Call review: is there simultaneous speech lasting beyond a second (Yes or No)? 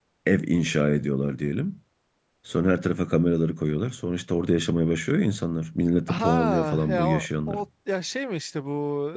Yes